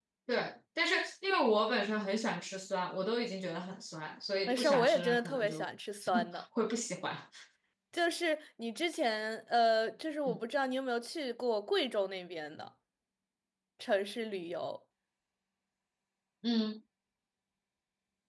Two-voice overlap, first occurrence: 4 s

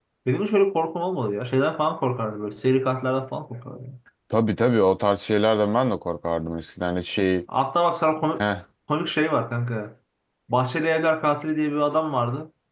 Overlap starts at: none

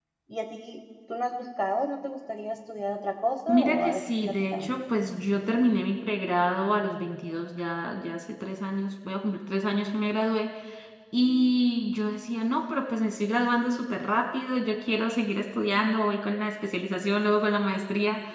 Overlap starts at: 3 s

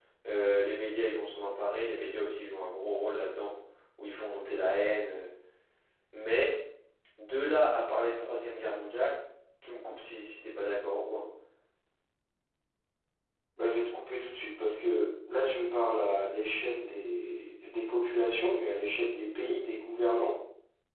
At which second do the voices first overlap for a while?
none

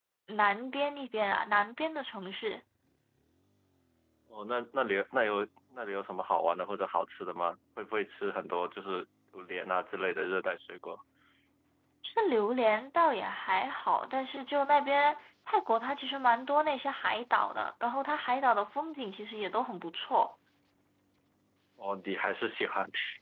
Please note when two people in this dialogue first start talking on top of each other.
none

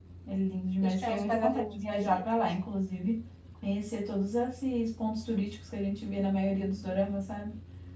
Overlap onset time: 1 s

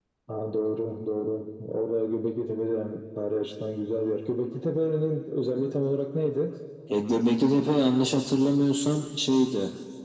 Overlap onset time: none

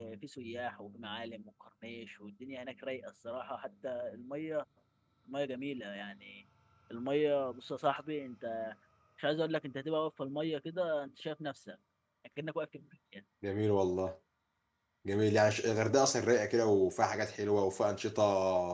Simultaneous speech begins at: none

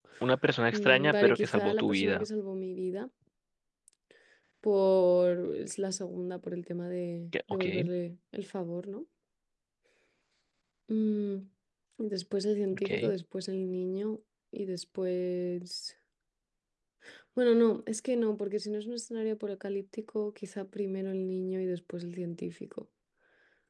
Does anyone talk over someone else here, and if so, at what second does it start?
1 s

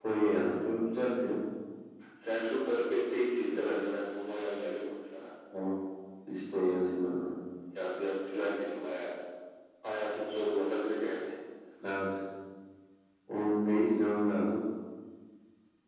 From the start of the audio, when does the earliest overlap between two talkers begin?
none

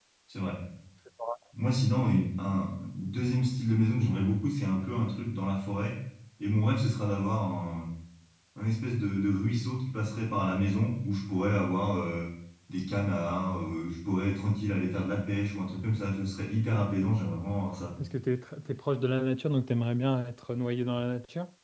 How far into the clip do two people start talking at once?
none

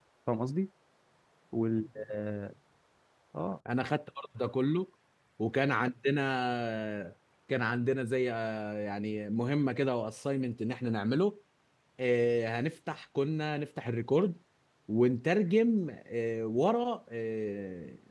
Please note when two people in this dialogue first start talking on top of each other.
none

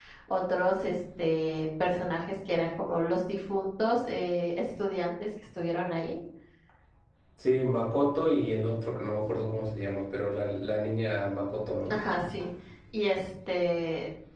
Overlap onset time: none

